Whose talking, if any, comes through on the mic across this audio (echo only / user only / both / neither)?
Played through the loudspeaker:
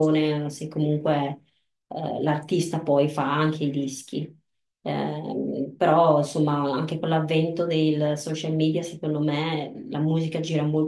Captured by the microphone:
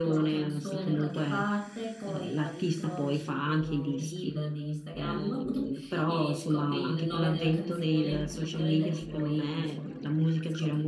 both